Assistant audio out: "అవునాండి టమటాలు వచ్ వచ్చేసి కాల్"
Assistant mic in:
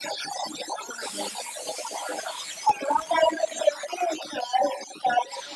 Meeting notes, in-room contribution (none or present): none